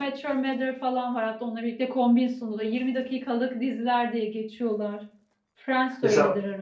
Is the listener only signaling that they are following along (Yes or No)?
No